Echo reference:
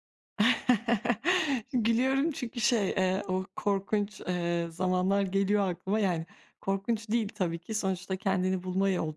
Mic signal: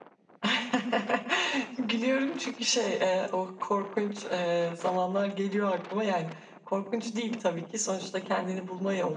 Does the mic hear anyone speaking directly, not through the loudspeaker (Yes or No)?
No